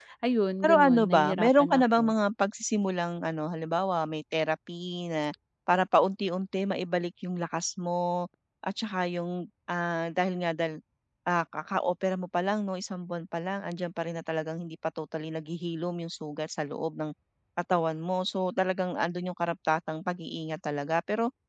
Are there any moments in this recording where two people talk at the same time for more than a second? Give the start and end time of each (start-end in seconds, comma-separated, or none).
0.6-2.1